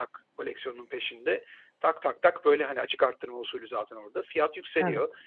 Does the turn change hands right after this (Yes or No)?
No